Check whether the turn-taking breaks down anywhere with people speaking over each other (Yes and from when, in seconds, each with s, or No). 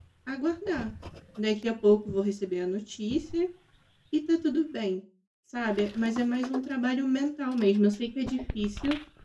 No